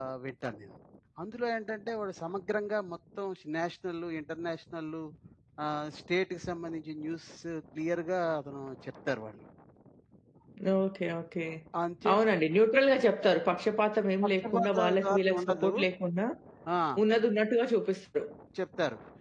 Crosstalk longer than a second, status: present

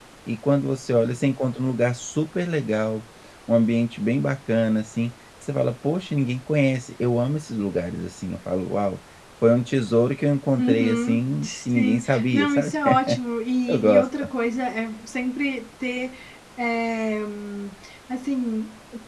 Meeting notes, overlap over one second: present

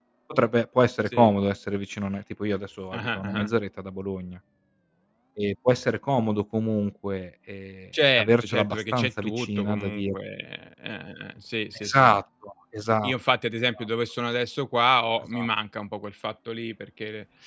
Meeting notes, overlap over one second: present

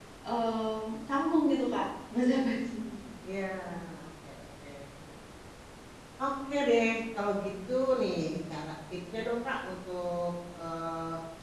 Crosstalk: none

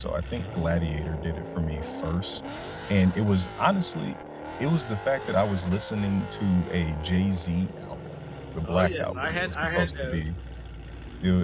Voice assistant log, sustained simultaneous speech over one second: present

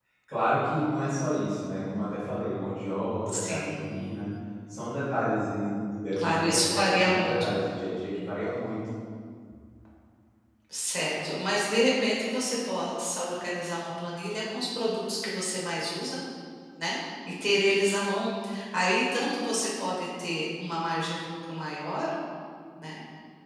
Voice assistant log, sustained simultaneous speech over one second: present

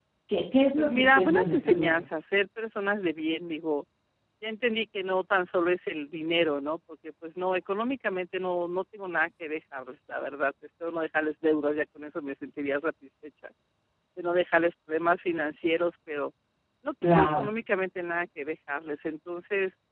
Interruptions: present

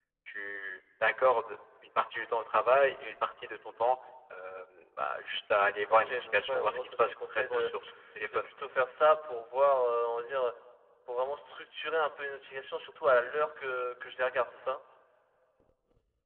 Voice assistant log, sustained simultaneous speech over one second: present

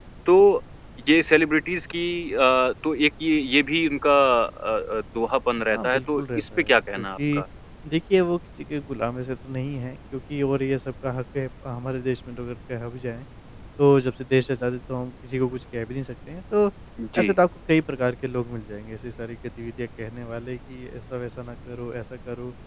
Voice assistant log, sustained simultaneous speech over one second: present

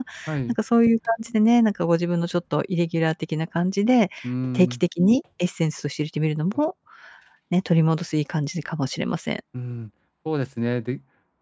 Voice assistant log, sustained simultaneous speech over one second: none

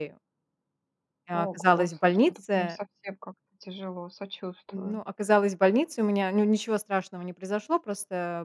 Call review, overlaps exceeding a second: present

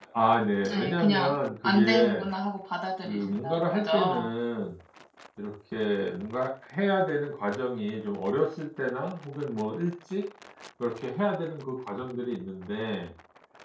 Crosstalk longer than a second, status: present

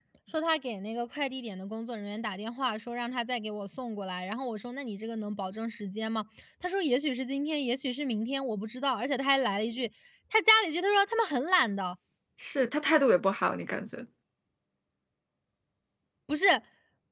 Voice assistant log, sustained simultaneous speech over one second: none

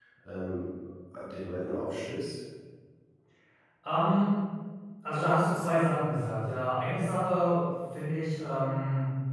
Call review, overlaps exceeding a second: none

